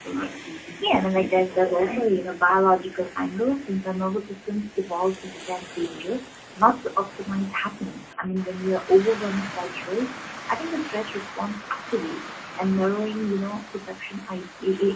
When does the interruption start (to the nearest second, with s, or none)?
1 s